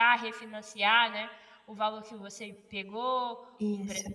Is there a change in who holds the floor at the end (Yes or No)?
No